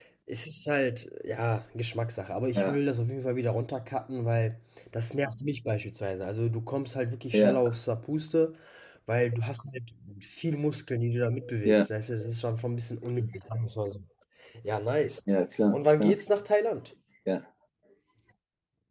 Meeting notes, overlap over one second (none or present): none